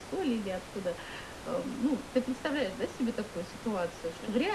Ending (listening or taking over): listening